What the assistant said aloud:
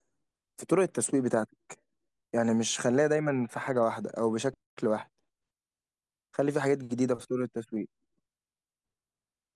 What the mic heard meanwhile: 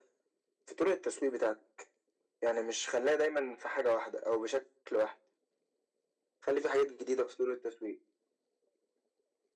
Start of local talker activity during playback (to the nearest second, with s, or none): none